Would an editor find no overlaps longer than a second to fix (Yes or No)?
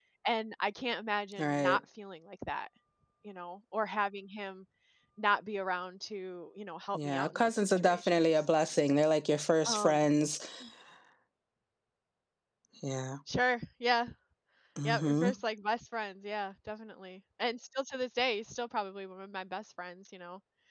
No